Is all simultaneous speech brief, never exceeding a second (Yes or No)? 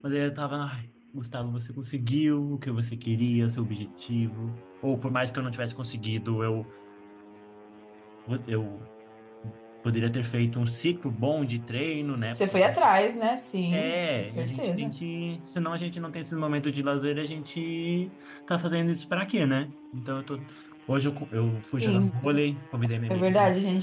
No